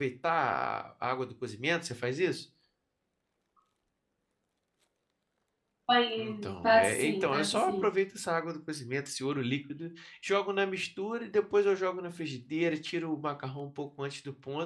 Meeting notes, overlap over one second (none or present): present